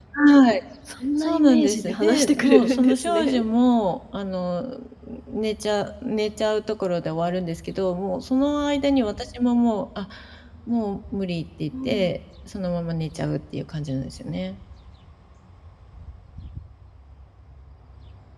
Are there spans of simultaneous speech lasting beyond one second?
Yes, from 1.2 s

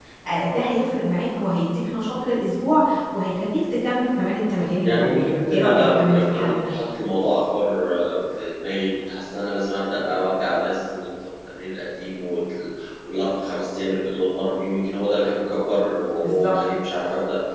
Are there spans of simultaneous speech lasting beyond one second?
Yes, from 4.8 s

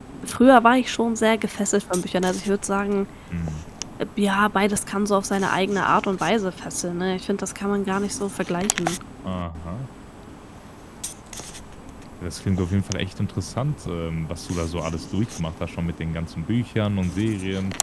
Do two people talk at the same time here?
No

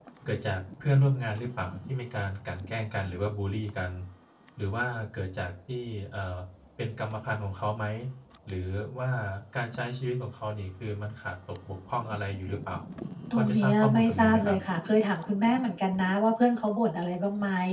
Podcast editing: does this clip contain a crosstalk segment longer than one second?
Yes, from 13.3 s

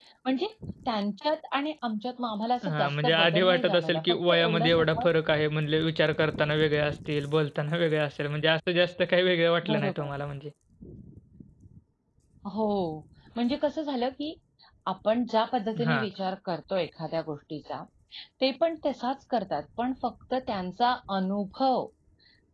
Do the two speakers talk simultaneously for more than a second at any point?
Yes, from 2.6 s

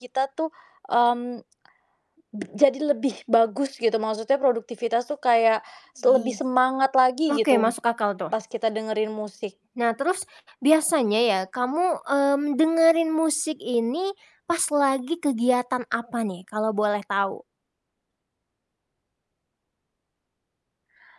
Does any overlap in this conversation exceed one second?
No

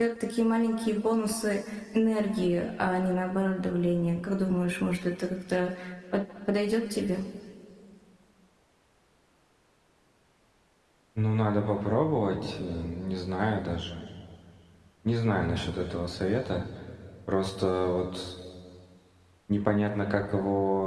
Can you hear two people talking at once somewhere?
No

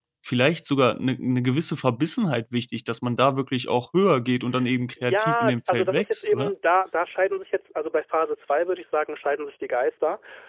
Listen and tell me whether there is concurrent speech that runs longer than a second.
Yes, from 5.0 s

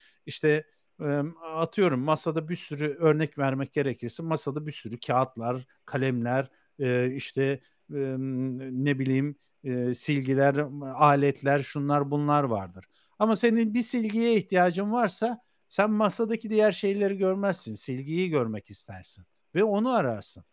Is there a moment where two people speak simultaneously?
No

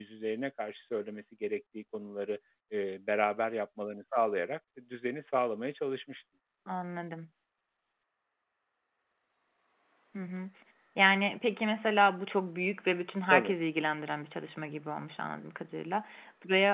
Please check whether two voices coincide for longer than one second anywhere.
No

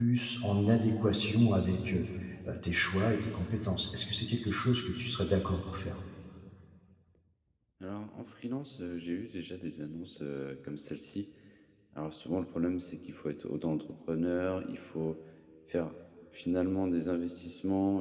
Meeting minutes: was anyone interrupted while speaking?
No

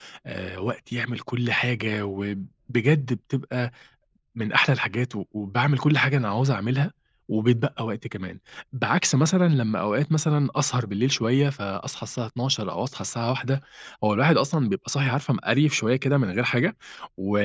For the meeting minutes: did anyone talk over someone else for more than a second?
No

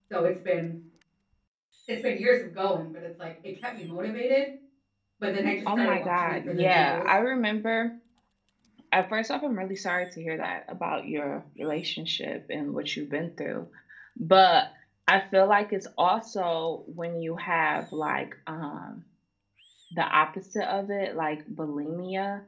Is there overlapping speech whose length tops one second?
Yes, from 5.8 s

